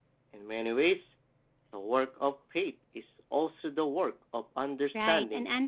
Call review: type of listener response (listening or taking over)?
taking over